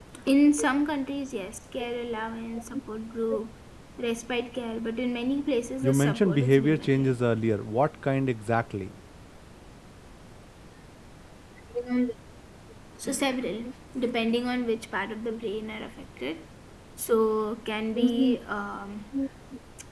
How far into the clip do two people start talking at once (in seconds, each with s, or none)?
5.8 s